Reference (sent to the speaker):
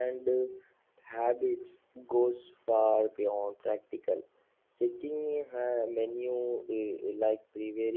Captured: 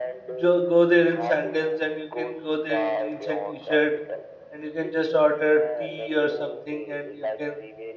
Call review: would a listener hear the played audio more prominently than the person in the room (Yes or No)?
No